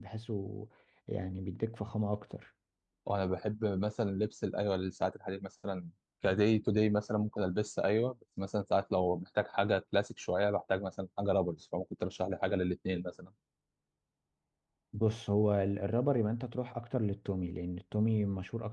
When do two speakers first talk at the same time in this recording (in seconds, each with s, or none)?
none